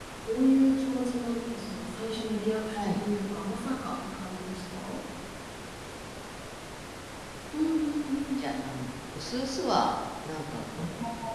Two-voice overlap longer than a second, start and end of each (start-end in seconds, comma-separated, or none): none